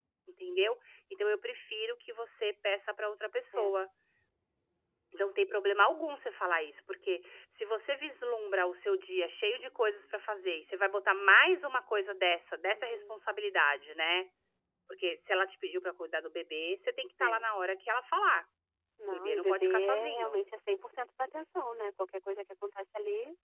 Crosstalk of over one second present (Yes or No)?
Yes